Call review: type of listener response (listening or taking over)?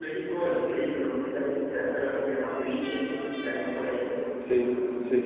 taking over